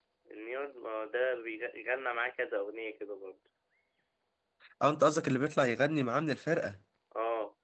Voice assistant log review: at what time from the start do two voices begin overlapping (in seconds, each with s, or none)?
none